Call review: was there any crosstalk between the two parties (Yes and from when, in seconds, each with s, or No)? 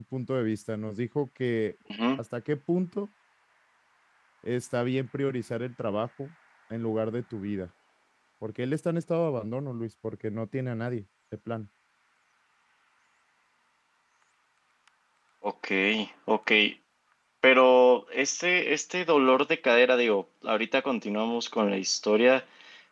No